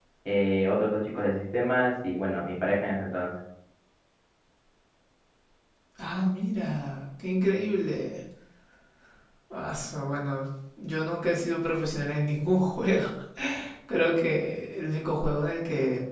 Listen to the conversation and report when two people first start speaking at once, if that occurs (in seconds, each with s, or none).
none